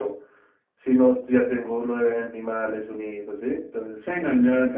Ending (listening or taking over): taking over